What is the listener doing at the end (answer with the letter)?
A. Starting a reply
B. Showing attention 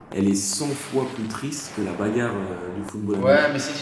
A